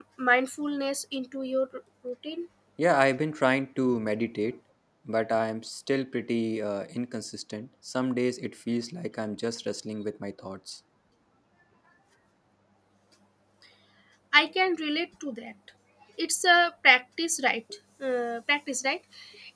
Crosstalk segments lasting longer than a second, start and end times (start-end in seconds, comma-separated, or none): none